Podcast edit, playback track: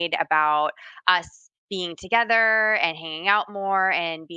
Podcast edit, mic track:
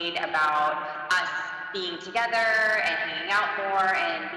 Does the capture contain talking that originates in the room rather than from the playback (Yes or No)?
No